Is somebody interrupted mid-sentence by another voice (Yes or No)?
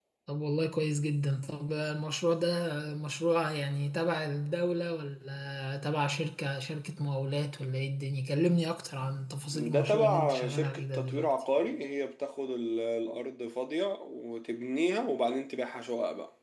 Yes